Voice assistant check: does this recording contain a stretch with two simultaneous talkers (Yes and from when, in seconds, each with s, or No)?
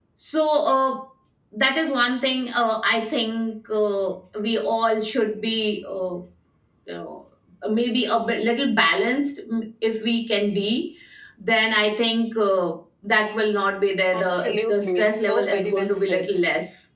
Yes, from 14.1 s